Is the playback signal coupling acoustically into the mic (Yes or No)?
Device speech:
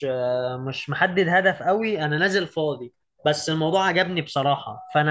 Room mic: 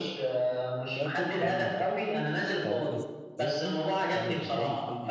Yes